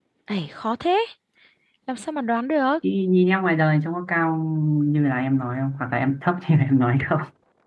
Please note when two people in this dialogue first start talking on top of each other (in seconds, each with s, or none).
none